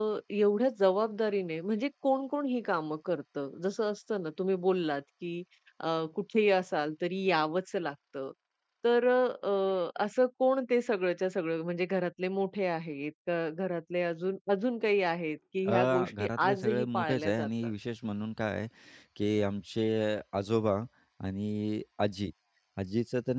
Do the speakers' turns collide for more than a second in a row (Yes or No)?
Yes